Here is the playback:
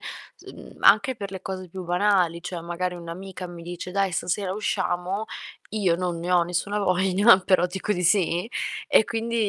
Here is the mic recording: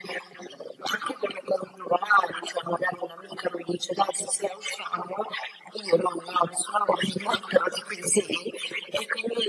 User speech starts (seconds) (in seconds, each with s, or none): none